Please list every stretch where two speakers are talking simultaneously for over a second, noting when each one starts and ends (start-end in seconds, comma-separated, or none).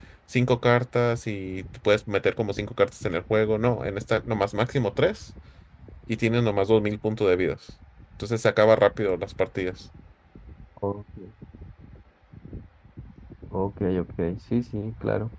none